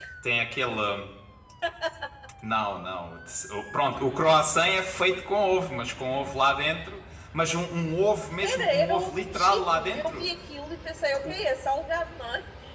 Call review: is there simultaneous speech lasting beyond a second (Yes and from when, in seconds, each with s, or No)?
Yes, from 8.4 s